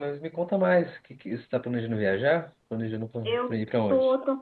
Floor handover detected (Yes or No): Yes